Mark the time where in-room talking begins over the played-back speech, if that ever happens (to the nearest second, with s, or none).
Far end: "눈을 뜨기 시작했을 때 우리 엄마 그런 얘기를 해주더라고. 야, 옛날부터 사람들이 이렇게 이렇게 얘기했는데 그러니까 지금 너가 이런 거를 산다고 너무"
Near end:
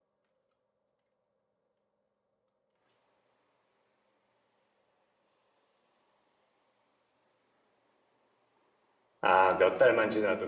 9 s